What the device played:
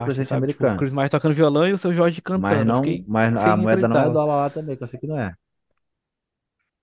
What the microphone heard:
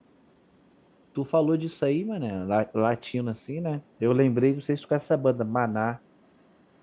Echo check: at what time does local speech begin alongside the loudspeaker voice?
1.1 s

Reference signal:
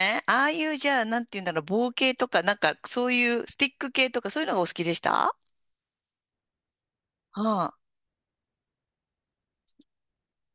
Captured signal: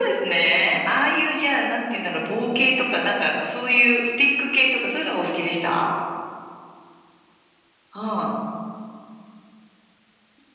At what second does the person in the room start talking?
none

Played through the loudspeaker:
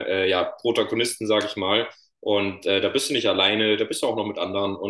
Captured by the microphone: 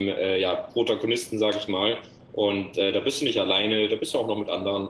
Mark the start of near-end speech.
none

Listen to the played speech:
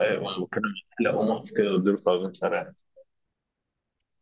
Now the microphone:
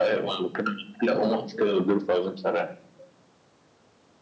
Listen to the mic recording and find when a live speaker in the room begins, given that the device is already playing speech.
none

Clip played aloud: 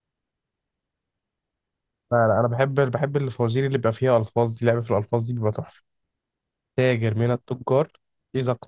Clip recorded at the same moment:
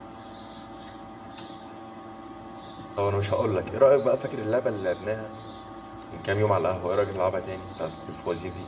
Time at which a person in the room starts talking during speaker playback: 2.9 s

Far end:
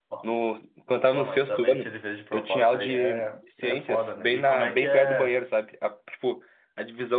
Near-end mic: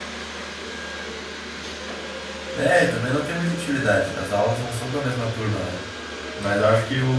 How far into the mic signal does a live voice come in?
2.5 s

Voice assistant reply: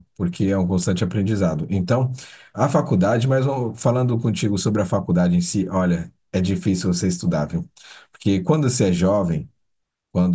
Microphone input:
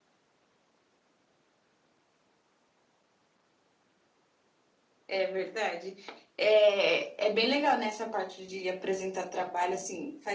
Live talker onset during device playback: 5.1 s

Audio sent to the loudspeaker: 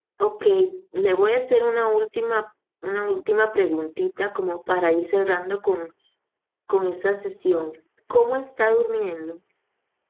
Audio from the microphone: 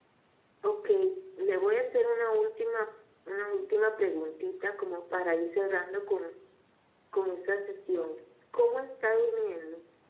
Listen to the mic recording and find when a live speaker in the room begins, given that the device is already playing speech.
none

